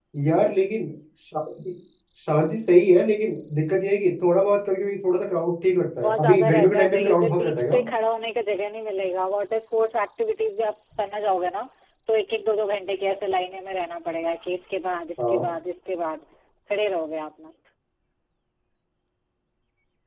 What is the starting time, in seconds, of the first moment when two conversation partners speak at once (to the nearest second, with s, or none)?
6 s